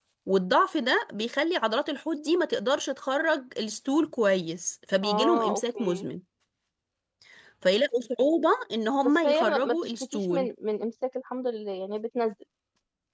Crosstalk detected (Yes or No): Yes